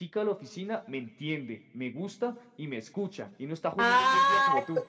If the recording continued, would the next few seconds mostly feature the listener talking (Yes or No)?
Yes